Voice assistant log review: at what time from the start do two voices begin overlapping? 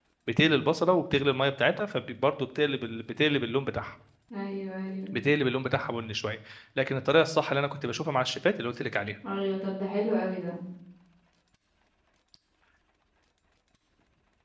none

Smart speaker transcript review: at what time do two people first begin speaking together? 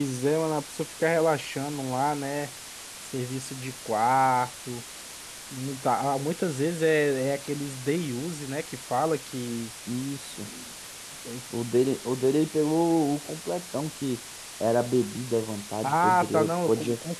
15.8 s

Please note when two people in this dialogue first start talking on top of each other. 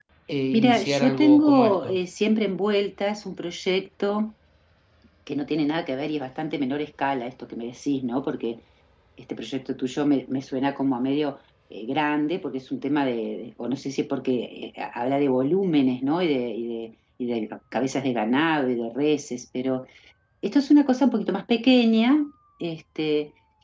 0.5 s

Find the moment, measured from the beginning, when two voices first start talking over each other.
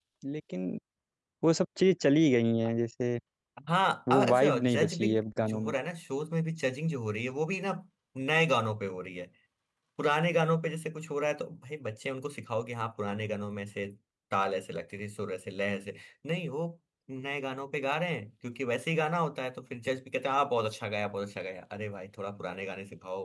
4.1 s

